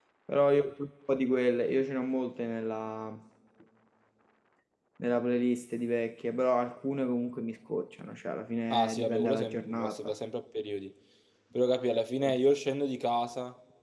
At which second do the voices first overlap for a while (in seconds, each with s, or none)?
8.7 s